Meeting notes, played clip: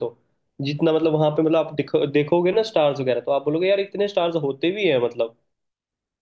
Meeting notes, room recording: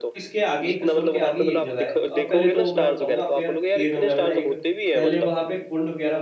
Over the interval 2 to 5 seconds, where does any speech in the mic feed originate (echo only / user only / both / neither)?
both